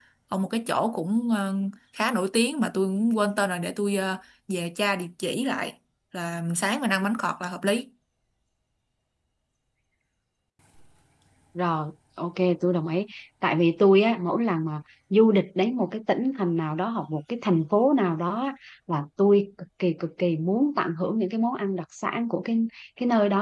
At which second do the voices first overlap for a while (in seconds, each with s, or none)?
none